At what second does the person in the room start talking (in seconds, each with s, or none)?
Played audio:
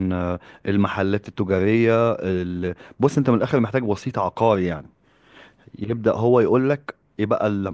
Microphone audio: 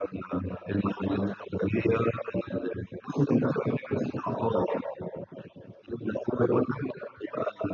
none